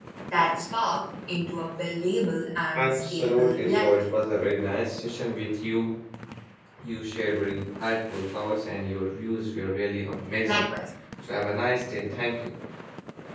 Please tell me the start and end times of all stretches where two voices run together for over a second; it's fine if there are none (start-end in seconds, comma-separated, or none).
2.8-4.1